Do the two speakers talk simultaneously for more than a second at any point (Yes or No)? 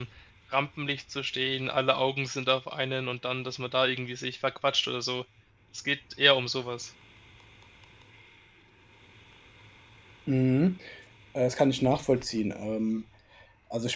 No